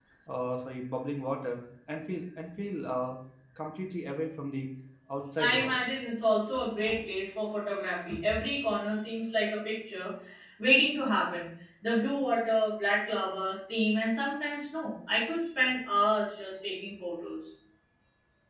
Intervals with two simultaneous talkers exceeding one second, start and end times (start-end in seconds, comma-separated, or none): none